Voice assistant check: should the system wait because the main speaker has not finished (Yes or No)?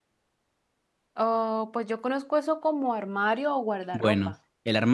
No